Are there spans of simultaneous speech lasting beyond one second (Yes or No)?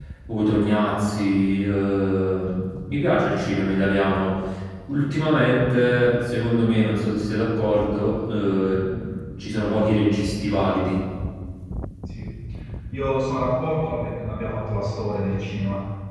No